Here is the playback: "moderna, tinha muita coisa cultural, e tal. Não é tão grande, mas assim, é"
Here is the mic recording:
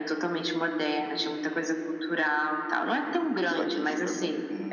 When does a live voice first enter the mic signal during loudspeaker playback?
3.4 s

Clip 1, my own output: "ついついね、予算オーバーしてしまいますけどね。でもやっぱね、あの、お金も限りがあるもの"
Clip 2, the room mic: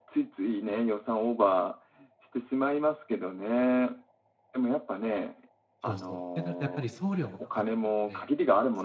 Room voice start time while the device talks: 5.8 s

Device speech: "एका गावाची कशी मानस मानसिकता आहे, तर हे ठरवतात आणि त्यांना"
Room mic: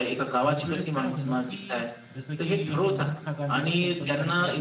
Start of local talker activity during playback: 0.4 s

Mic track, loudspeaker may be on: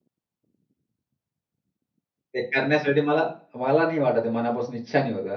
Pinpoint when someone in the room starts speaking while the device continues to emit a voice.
2.3 s

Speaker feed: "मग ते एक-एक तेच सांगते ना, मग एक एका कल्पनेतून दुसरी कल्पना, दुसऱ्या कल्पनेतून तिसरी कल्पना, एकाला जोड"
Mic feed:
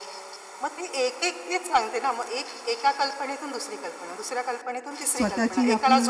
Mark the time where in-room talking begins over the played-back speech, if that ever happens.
5.2 s

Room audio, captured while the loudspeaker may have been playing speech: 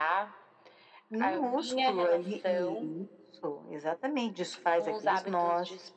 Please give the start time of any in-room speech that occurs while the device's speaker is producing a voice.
none

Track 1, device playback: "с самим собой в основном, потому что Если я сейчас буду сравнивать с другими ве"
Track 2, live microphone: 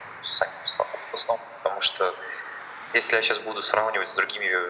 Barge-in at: none

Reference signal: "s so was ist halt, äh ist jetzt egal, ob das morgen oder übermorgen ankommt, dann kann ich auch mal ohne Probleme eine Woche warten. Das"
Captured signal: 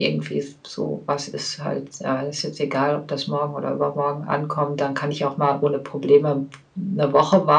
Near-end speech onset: none

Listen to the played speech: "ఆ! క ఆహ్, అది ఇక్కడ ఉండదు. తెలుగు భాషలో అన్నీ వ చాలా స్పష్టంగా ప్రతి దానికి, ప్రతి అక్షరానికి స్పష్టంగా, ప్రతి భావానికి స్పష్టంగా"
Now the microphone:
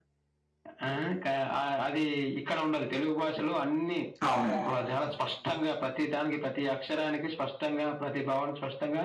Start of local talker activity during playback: 4.3 s

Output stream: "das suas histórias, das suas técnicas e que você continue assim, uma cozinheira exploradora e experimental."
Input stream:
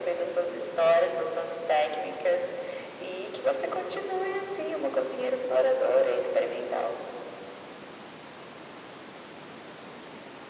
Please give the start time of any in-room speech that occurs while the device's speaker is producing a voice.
none

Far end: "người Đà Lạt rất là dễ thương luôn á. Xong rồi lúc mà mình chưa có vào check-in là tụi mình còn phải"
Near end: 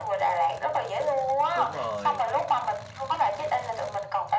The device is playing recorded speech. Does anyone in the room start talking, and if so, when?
1.5 s

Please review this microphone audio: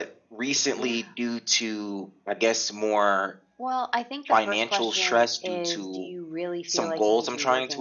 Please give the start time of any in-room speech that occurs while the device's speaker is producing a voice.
none

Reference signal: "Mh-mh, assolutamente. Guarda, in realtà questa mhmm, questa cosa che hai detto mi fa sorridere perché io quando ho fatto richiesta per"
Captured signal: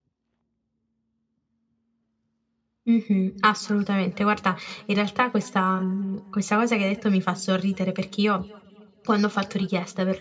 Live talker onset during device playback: none

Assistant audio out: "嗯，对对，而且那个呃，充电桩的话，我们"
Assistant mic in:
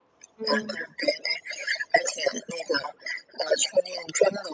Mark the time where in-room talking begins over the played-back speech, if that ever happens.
0.4 s

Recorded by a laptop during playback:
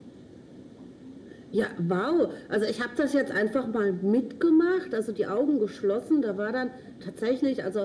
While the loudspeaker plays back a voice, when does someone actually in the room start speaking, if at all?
none

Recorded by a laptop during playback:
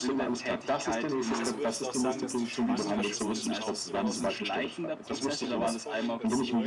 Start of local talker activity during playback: 1.1 s

